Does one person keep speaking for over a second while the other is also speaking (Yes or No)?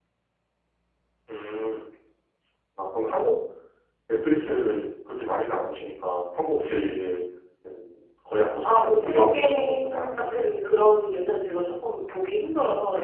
Yes